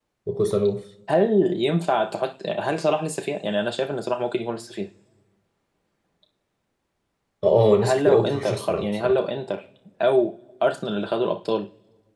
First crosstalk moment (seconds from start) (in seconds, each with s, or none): 7.8 s